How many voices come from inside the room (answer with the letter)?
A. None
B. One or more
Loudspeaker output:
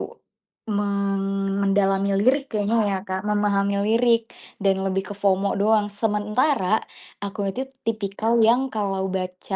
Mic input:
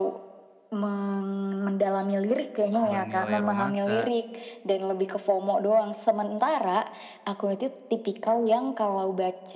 B